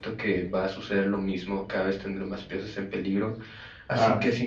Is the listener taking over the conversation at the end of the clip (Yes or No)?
No